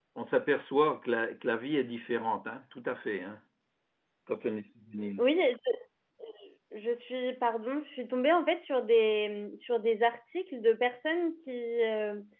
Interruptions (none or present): none